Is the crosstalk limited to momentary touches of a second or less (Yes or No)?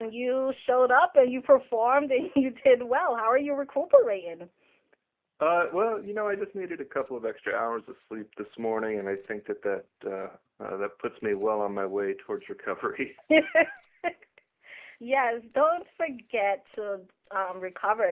Yes